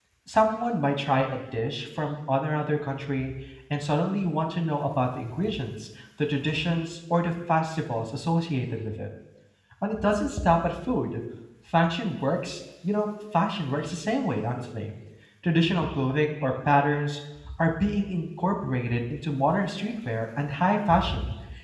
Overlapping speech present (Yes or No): No